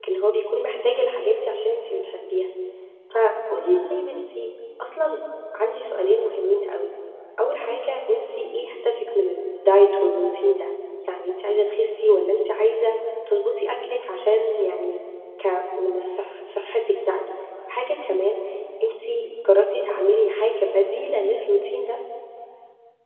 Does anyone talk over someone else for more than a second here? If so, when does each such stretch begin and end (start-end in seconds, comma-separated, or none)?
none